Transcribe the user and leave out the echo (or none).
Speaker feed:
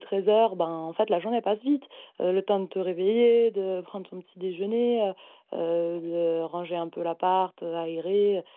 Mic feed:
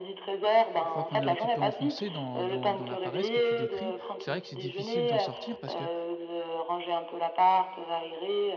une fois qu'on est un petit peu enfoncé dans dans dans la paresse que tu décris, c'est vrai que c'est difficile d'en sortir parce que